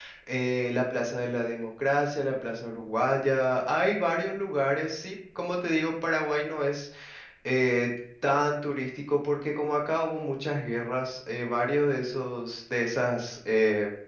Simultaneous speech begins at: none

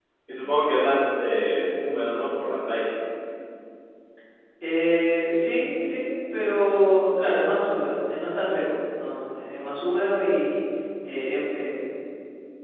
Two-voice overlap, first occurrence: none

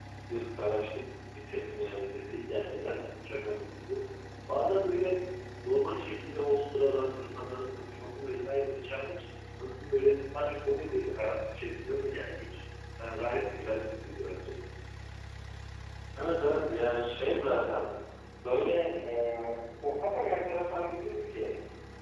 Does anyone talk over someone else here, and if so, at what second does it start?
none

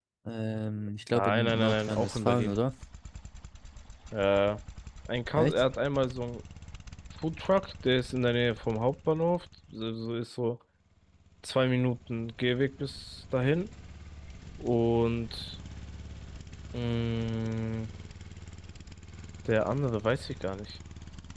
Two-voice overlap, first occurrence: 1.1 s

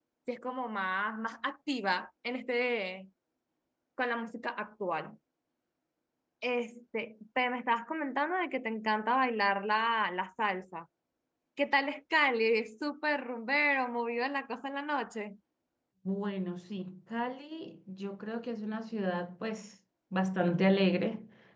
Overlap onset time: none

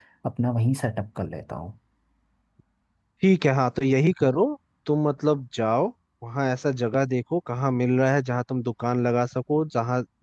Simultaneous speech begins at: none

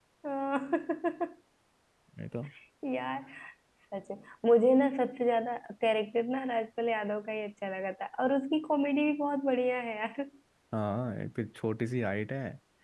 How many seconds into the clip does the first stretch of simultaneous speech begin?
none

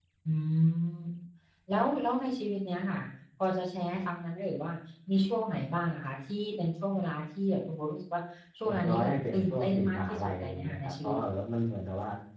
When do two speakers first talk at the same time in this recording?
8.7 s

